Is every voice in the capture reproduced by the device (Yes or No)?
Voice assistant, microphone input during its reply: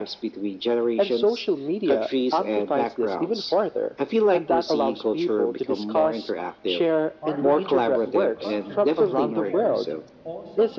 No